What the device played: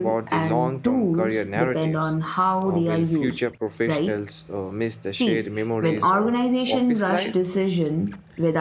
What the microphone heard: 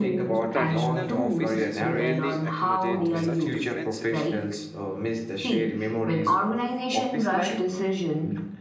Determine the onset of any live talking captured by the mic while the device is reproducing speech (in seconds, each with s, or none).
0.3 s